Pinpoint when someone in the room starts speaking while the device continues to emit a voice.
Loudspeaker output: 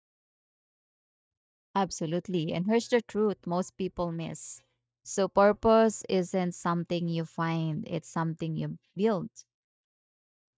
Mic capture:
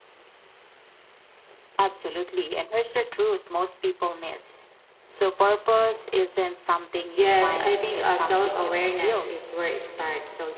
7.1 s

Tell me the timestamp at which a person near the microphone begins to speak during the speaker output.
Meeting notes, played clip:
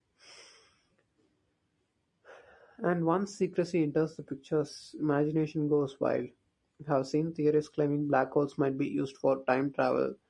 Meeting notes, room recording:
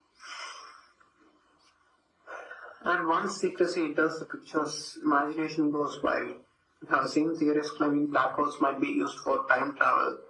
none

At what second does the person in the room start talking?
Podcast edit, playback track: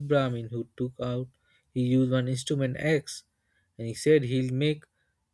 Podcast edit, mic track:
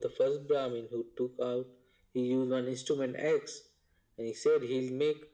none

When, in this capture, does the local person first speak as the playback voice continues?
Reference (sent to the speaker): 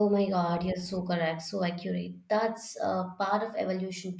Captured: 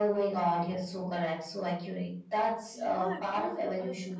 2.7 s

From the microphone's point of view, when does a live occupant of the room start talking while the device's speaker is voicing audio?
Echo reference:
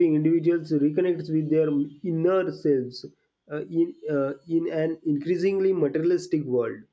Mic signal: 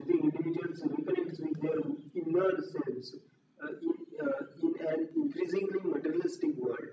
none

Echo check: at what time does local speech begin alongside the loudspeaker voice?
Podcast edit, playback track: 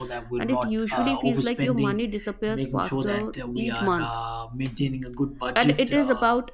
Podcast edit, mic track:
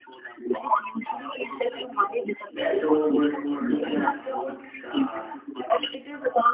2.5 s

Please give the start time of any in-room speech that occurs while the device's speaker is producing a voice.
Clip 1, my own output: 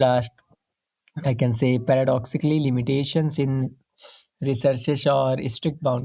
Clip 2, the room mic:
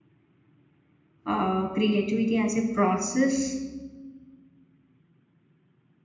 1.3 s

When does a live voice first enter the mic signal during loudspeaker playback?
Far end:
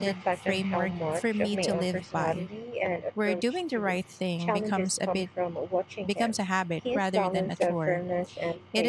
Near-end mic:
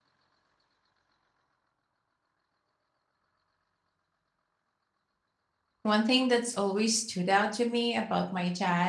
5.8 s

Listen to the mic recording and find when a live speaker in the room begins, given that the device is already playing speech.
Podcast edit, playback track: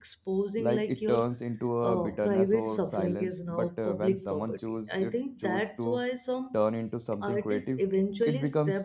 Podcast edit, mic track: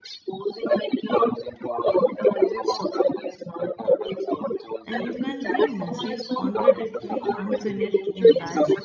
4.8 s

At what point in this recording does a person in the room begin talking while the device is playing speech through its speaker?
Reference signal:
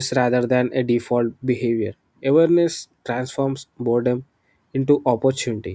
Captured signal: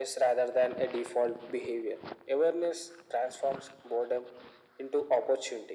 none

